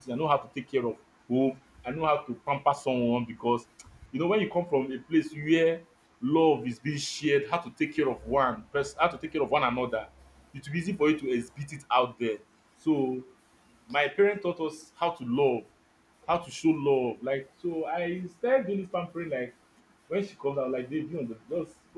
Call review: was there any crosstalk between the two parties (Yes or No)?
No